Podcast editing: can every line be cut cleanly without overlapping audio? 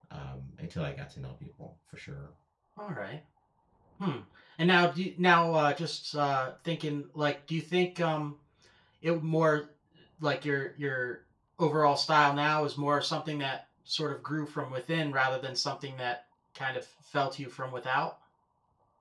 Yes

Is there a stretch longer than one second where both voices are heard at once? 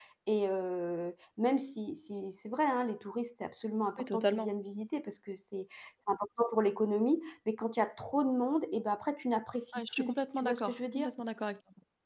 Yes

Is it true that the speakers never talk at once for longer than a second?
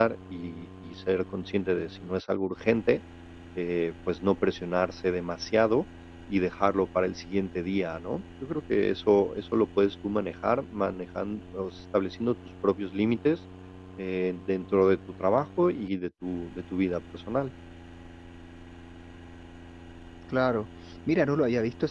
Yes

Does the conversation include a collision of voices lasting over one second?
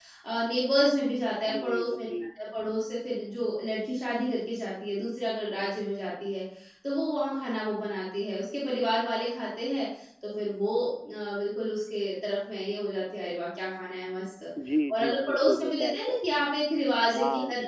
Yes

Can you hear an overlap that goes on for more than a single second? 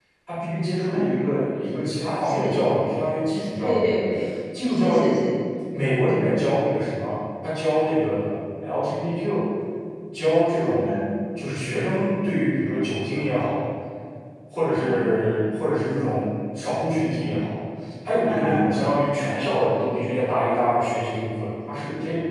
No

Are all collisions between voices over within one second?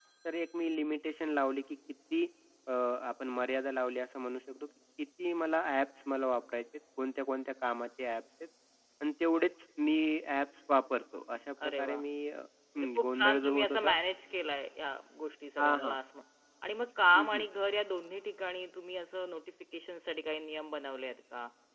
No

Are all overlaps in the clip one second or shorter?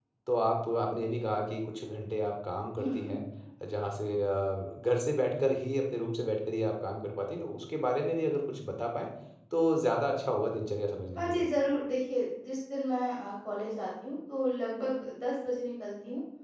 Yes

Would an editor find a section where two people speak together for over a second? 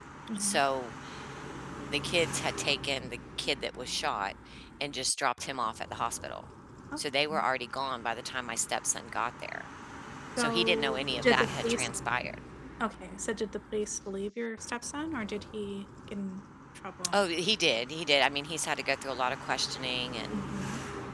Yes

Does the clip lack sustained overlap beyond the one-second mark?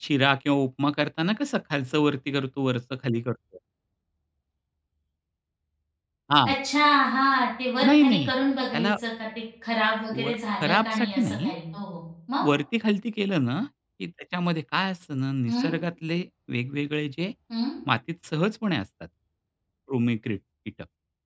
No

